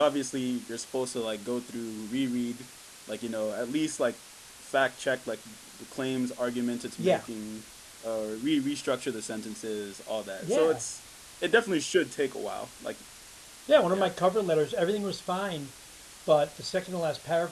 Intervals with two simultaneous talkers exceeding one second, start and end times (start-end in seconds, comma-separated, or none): none